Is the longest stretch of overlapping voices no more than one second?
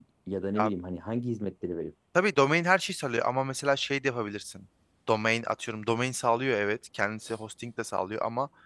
Yes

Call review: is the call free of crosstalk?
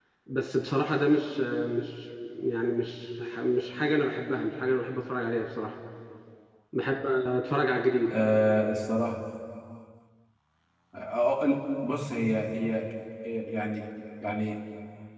Yes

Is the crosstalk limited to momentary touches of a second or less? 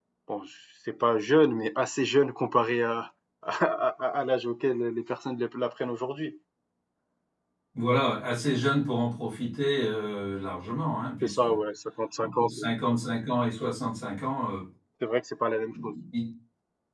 Yes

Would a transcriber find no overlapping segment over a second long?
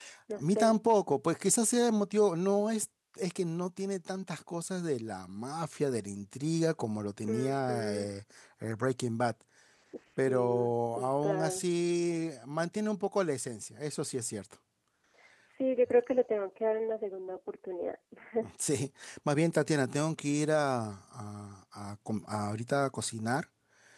No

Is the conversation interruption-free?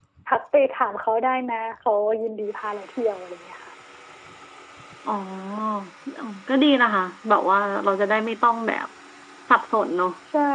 Yes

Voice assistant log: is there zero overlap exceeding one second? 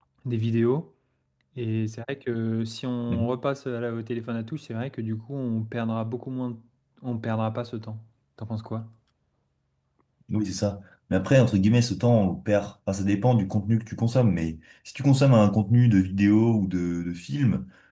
Yes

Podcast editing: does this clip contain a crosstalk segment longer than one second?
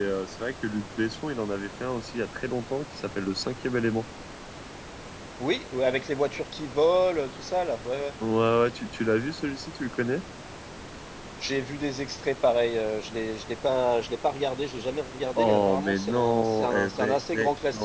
Yes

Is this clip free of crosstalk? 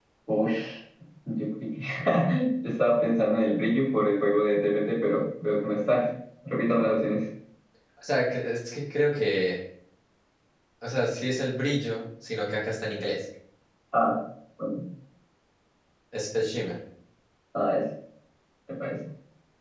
Yes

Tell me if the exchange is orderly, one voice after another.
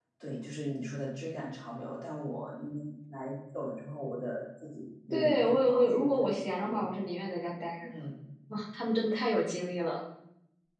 No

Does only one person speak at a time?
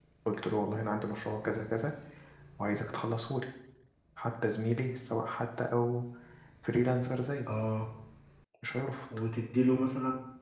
Yes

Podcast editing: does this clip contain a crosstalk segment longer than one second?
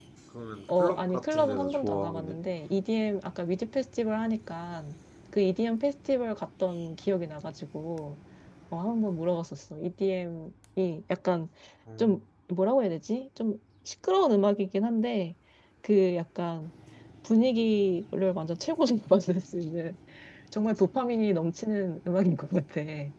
Yes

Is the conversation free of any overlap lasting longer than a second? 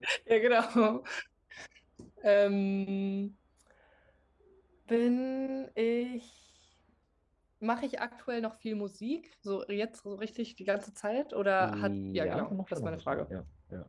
No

